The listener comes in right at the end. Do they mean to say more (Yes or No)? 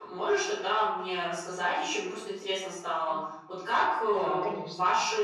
No